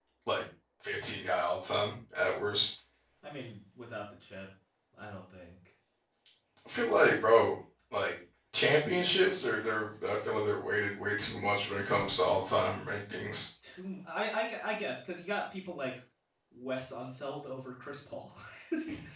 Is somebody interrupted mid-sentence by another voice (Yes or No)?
No